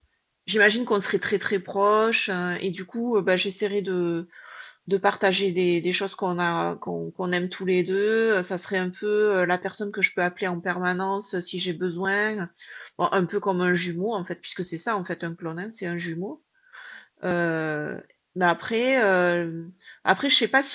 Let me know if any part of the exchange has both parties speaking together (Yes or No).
No